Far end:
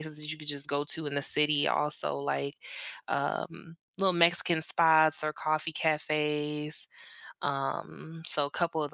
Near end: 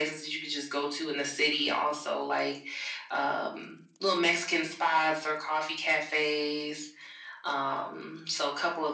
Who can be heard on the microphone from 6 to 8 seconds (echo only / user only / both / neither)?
echo only